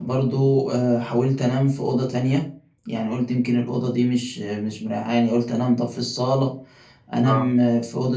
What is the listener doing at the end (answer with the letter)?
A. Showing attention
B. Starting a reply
A